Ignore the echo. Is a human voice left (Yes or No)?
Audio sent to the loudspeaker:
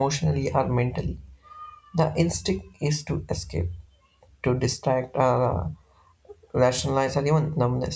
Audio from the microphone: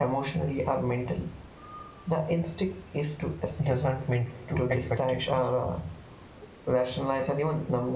Yes